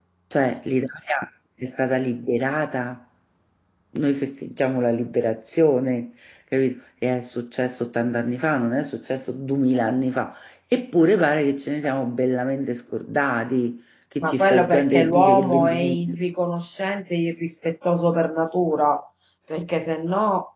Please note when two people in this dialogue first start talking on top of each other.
14.2 s

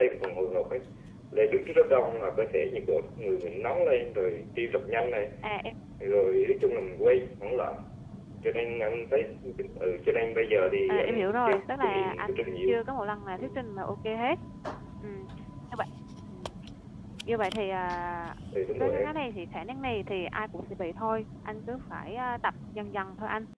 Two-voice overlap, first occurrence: 10.9 s

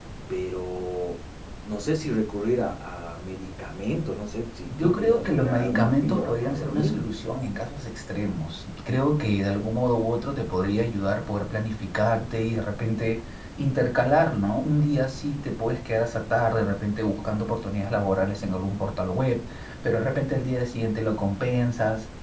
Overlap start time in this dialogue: 4.7 s

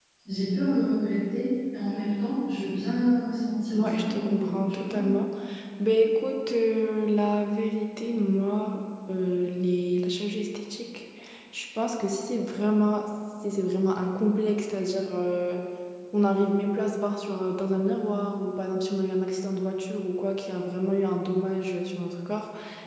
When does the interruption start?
3.7 s

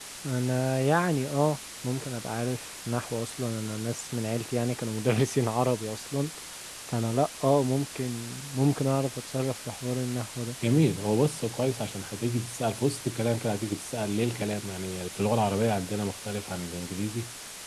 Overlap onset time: none

